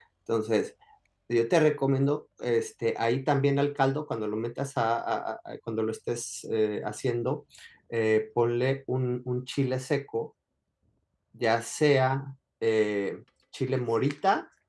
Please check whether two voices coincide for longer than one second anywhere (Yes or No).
No